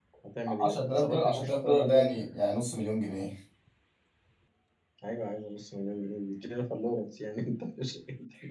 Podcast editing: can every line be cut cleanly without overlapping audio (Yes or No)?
No